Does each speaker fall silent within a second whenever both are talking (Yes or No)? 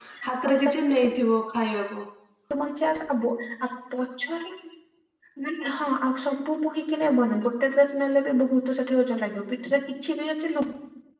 Yes